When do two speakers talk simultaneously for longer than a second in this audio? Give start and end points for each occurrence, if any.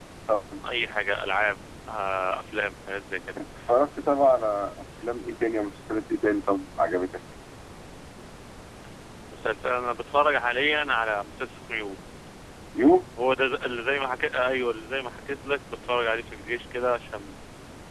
none

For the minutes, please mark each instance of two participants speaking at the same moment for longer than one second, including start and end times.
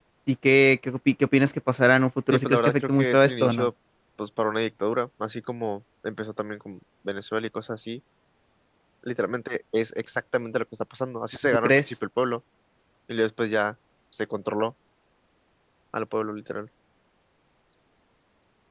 2.3-3.7

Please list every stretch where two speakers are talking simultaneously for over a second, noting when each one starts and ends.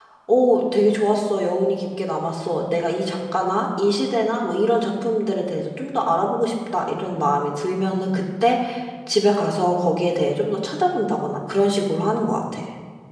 none

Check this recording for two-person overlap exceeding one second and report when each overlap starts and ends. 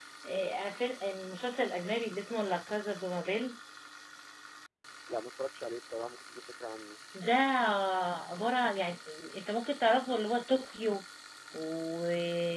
none

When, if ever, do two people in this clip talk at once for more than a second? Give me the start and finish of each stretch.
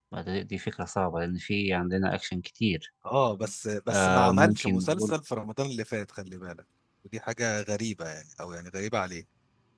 3.9-5.1

